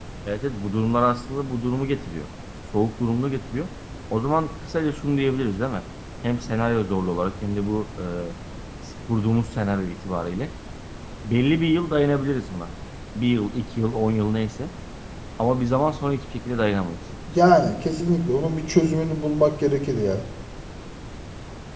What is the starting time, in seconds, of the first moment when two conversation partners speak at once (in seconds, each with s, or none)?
none